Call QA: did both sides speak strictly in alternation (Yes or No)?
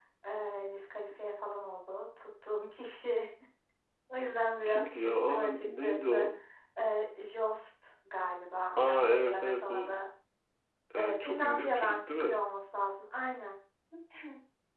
No